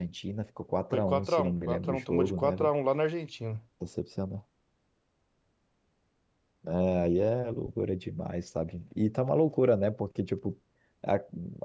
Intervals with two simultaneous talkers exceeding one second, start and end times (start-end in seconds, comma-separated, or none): 0.9-2.5